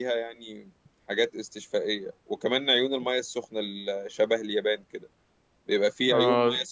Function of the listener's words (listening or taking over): listening